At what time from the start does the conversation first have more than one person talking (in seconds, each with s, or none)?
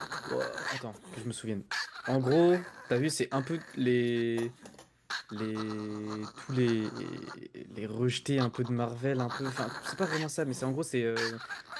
none